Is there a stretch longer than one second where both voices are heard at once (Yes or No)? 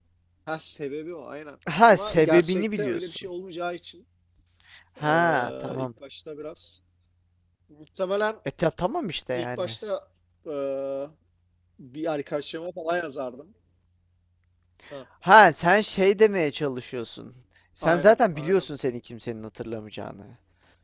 Yes